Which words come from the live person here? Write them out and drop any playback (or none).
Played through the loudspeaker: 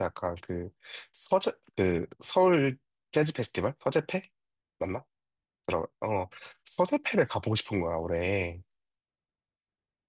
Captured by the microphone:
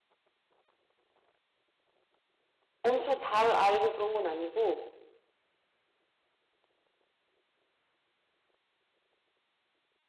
엄청 잘 알고 그런 건 아니고